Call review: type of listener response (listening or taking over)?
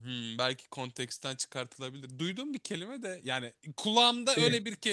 listening